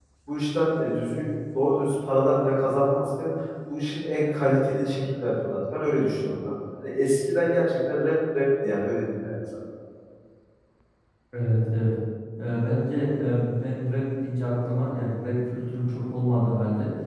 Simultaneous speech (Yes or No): No